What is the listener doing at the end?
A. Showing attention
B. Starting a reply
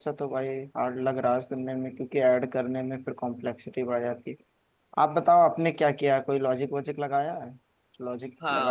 B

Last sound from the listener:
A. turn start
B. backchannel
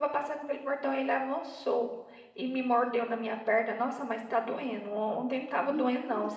B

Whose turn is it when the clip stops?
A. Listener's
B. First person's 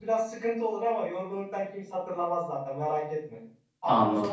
B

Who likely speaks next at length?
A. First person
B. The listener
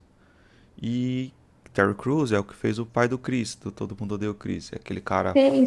B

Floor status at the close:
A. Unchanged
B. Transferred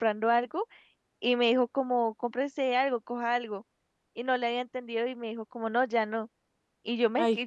A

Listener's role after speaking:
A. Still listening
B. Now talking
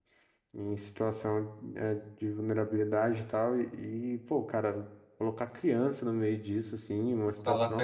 A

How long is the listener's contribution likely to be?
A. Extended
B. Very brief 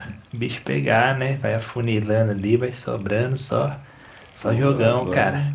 A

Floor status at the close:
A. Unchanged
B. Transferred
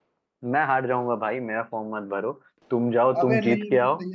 B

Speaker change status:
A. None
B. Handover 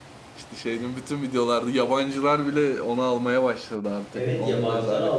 B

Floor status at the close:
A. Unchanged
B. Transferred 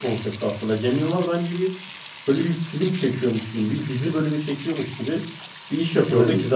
A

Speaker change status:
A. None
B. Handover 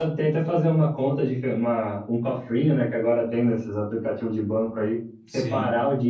A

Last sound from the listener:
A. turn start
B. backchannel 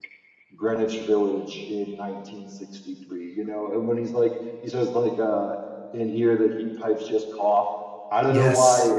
B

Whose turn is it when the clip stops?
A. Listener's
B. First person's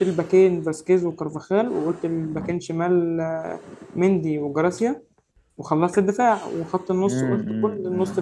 A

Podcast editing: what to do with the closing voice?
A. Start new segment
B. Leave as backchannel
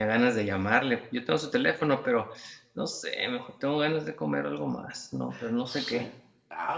A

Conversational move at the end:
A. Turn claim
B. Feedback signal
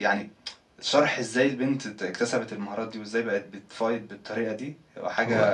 B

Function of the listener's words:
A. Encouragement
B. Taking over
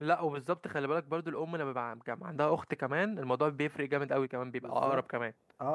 B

